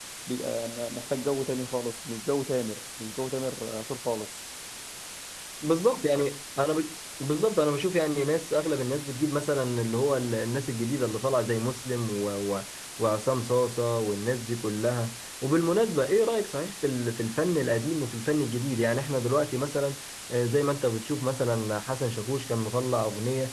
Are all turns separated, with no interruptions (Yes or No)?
Yes